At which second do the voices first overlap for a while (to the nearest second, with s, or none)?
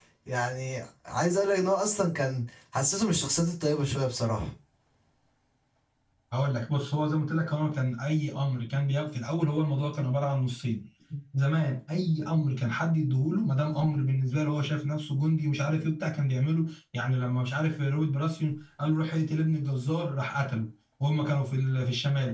none